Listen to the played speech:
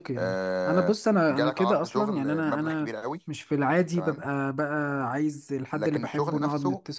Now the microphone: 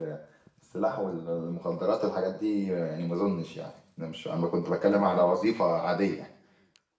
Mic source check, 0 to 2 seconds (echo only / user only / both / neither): user only